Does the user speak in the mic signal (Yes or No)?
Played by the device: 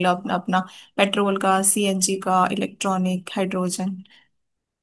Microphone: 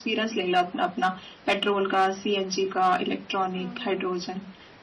Yes